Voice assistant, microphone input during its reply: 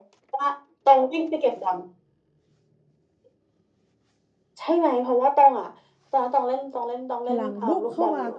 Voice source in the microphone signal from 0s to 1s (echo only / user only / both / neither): echo only